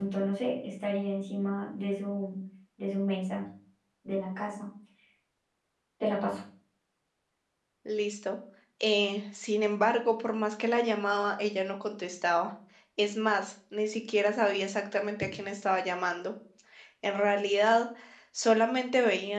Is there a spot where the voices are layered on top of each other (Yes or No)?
No